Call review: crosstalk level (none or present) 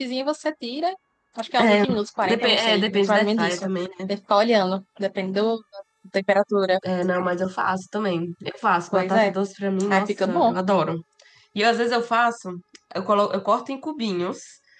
present